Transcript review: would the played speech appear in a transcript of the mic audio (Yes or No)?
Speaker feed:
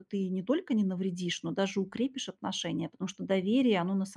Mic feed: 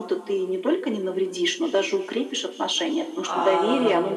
Yes